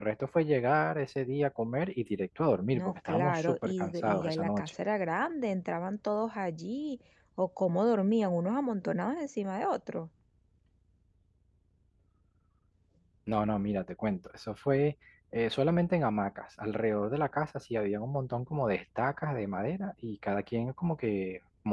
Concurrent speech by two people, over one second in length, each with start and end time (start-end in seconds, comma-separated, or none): 2.7-4.7